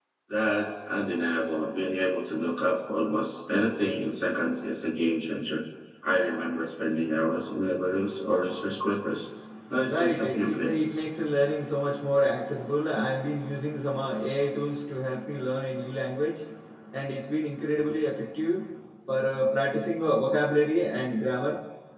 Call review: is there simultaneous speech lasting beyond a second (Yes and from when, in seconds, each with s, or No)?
Yes, from 9.9 s